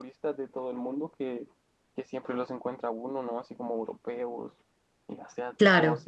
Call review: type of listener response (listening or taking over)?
listening